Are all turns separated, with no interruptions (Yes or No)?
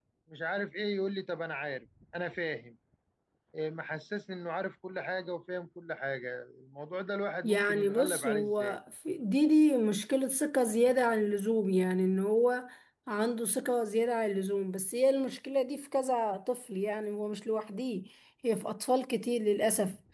No